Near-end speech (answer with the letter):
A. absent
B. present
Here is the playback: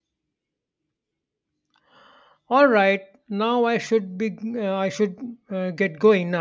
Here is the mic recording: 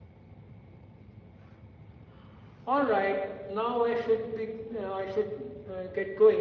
A